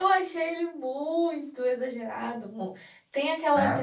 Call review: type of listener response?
listening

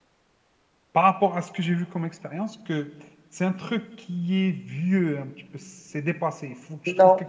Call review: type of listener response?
listening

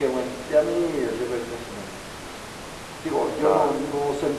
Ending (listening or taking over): listening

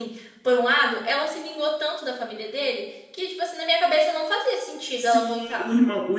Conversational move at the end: taking over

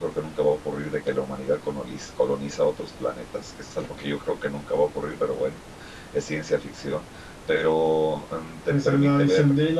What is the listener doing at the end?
taking over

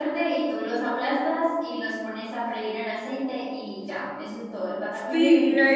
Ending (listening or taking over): taking over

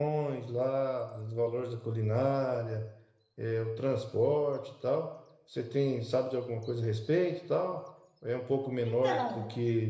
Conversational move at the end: listening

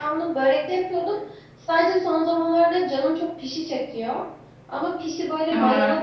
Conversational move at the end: listening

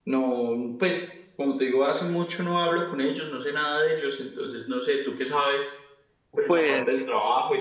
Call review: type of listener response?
taking over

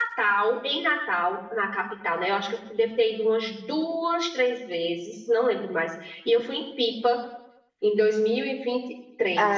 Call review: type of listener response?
taking over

